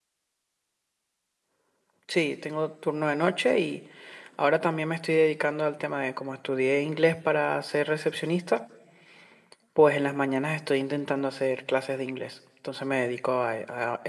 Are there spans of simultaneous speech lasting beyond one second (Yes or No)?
No